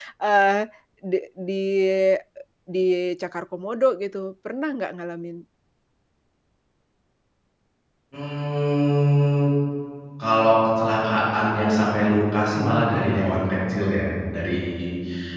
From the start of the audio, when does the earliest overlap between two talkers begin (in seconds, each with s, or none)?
none